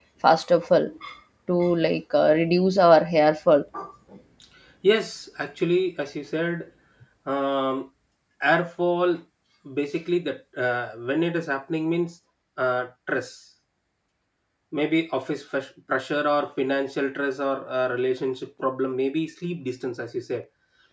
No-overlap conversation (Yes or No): Yes